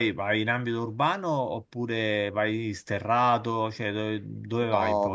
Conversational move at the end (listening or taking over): taking over